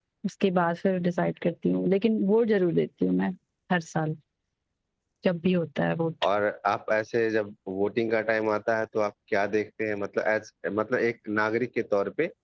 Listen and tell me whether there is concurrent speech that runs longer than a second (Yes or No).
No